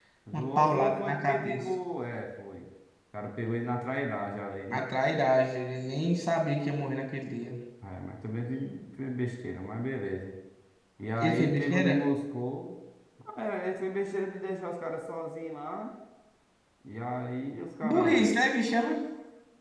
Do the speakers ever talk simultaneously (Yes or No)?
Yes